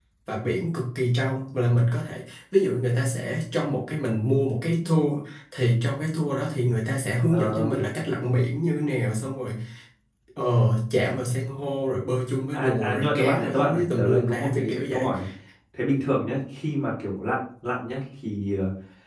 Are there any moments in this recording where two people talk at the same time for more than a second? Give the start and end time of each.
12.5-15.1

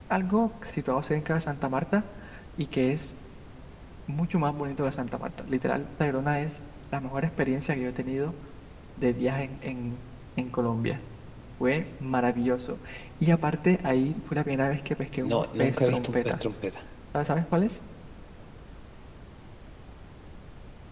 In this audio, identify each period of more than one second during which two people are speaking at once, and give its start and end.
15.2-16.4

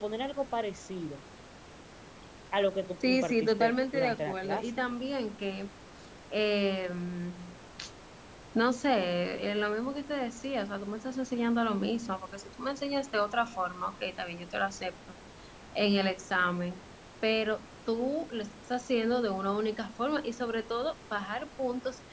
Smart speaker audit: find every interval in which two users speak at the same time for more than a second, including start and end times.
3.0-4.8

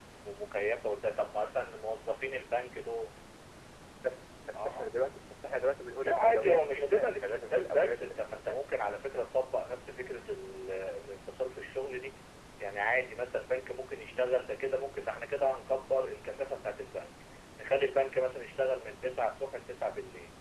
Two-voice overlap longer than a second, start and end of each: 6.0-8.6

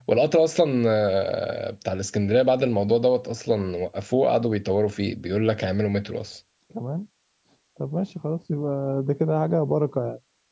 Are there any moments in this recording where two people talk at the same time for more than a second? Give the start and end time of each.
none

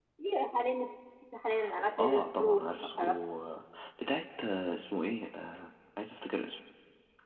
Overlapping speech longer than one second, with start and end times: 2.0-3.2

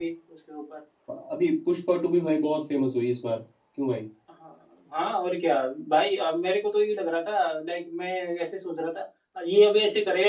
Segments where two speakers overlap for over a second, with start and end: none

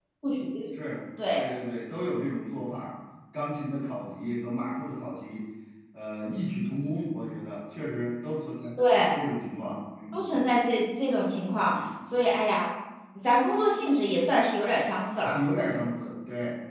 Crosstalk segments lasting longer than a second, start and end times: none

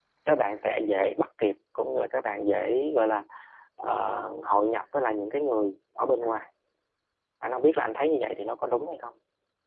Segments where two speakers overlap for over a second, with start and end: none

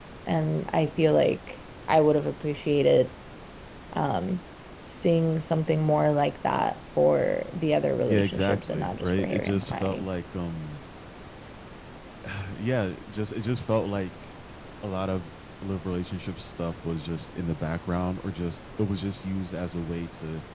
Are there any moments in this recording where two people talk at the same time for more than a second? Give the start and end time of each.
8.1-10.0

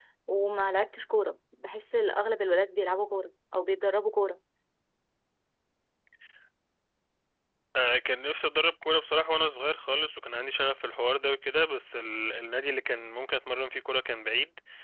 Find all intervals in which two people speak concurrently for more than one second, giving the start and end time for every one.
none

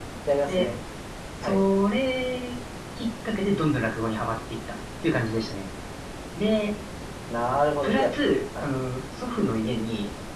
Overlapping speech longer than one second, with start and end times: none

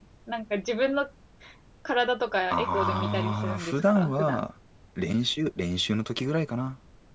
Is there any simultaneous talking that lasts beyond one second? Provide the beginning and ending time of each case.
2.5-4.5

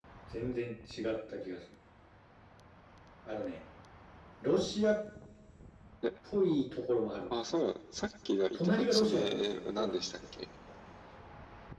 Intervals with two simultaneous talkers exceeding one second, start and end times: 8.5-10.1

